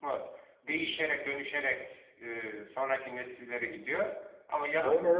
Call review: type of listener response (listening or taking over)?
taking over